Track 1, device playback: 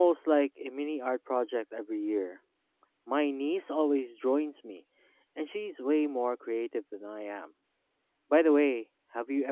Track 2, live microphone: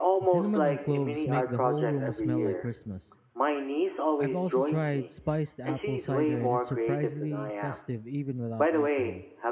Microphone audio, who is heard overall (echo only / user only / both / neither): both